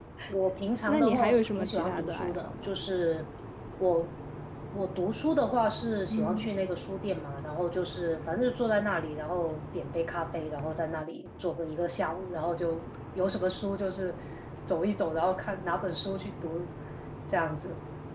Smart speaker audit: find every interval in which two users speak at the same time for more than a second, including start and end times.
0.9-2.7

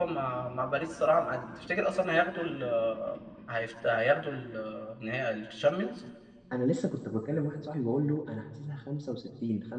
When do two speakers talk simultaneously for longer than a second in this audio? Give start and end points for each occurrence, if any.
none

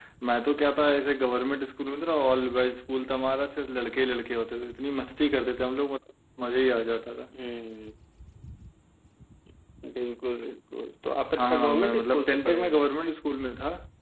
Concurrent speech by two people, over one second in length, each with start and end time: 11.4-12.9

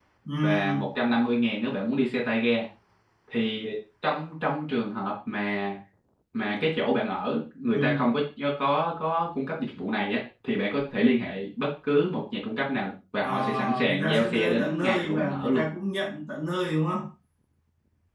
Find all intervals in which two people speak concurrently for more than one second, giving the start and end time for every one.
13.2-15.6

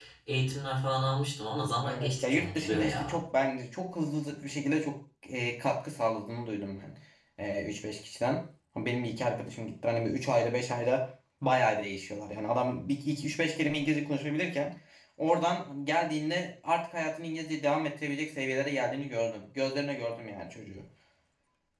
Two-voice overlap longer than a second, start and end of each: 1.8-3.2

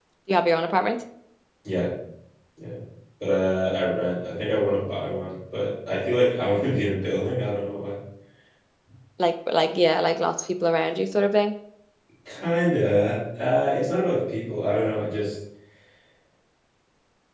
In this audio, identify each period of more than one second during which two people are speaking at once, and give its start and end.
none

